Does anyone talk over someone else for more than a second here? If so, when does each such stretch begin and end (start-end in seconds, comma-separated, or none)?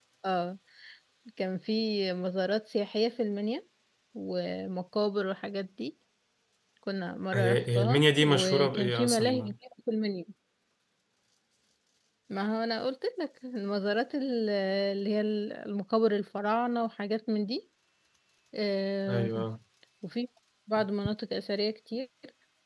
7.3-9.5